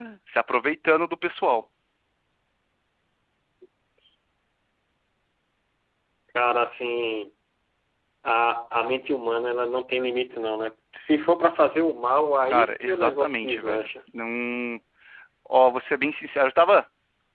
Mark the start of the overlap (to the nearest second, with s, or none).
13 s